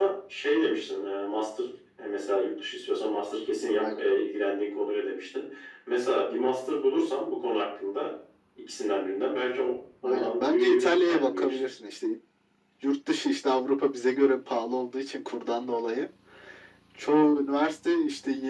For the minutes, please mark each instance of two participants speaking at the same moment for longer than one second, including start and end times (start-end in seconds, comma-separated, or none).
10.0-11.7